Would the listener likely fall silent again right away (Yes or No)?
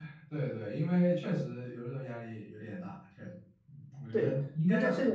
No